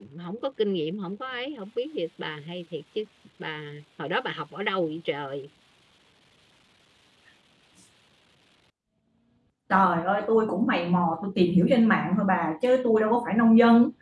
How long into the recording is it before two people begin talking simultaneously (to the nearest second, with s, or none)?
none